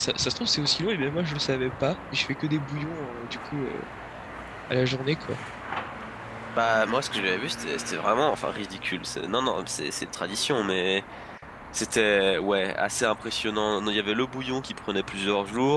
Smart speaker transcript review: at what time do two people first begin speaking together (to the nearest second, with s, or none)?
none